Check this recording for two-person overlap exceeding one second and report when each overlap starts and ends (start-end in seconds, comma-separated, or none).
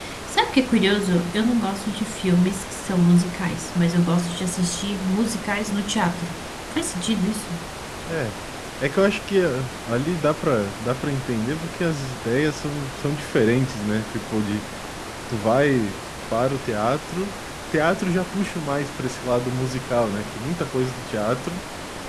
none